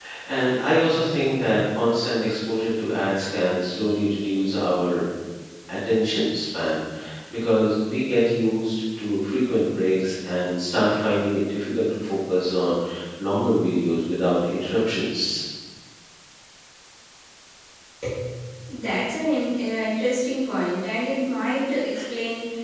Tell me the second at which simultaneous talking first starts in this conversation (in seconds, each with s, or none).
none